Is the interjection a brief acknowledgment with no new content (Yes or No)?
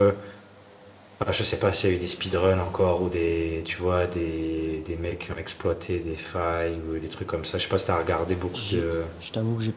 No